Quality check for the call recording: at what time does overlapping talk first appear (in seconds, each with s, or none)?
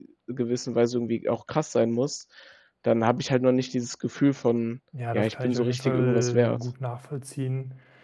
4.9 s